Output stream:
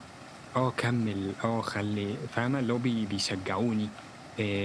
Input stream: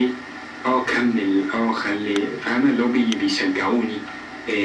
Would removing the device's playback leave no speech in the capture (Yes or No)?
Yes